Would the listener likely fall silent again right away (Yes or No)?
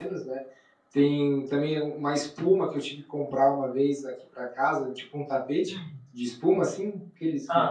Yes